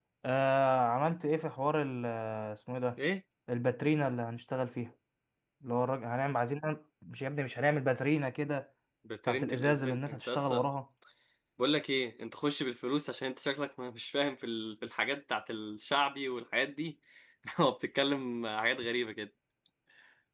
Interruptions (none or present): present